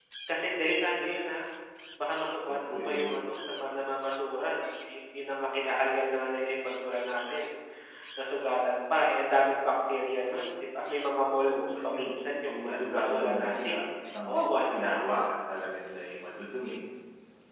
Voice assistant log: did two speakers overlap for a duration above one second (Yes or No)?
Yes